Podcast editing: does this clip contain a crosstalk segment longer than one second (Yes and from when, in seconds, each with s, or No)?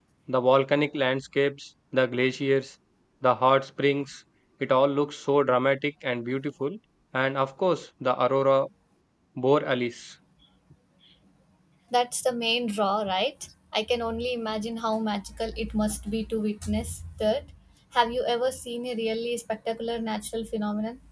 No